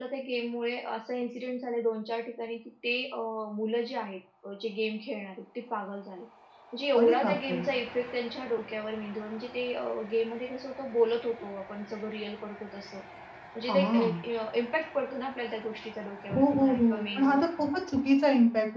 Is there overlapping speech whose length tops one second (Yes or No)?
Yes